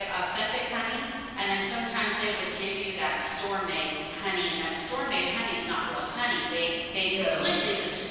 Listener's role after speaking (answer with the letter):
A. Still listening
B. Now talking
A